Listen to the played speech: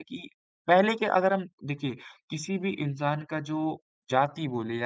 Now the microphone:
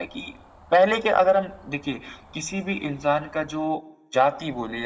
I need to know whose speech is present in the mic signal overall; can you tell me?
echo only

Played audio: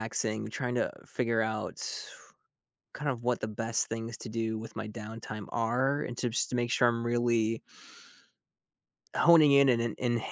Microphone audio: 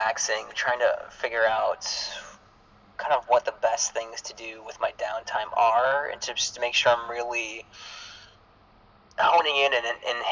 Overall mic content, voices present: echo only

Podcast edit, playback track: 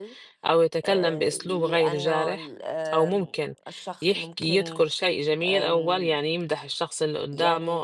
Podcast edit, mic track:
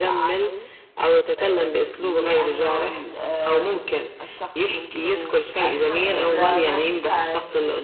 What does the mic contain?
both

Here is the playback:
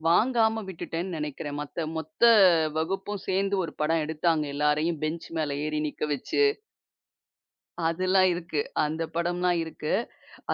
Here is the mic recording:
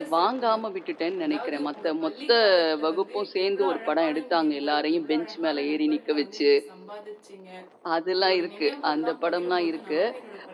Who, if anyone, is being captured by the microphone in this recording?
both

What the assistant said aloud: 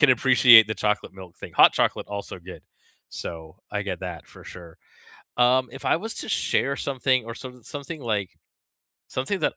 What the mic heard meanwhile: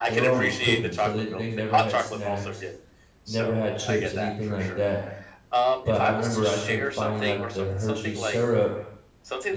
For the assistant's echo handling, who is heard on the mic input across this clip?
both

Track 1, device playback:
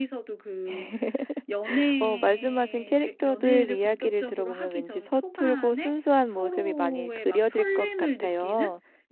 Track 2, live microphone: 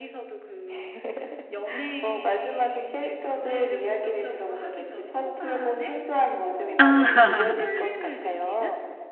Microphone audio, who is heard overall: both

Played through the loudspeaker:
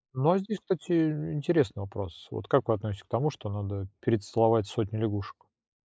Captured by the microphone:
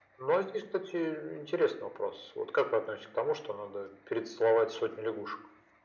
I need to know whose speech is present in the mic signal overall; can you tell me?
echo only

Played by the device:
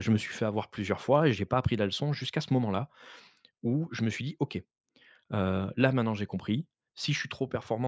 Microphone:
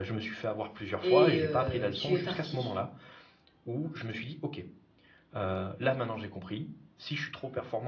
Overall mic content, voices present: both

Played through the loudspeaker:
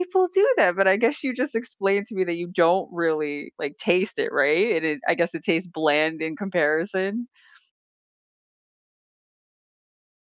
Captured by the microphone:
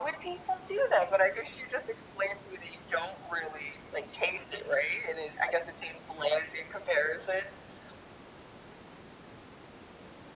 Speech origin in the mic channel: echo only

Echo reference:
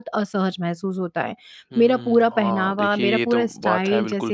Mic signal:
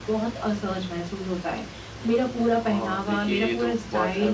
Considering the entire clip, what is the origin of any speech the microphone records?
echo only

